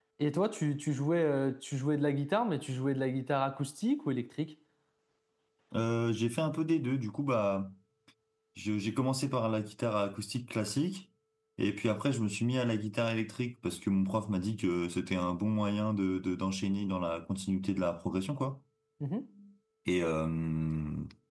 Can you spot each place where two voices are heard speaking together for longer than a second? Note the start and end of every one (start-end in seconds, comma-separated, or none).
none